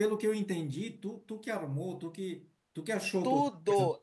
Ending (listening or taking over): taking over